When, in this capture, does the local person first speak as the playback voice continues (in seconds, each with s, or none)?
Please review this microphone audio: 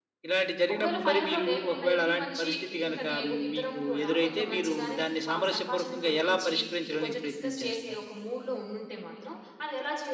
0.7 s